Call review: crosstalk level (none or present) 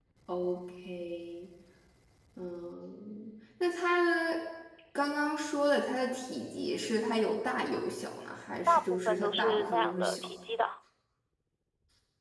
present